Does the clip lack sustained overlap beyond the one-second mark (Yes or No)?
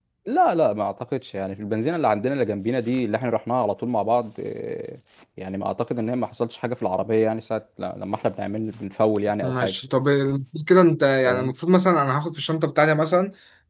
Yes